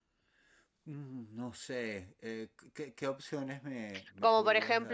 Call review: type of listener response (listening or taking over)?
taking over